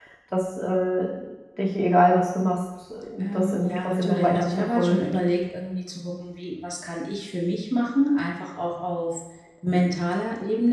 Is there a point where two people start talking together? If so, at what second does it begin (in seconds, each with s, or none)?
3.2 s